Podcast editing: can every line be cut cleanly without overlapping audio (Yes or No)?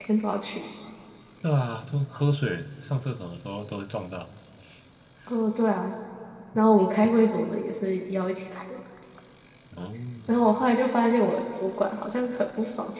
Yes